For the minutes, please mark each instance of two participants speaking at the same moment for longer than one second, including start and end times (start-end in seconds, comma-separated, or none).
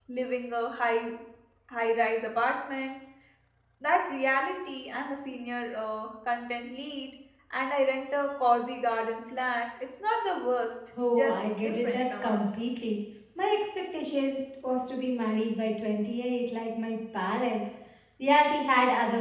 11.1-12.4